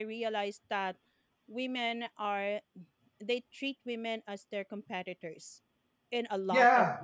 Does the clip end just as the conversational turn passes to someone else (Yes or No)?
Yes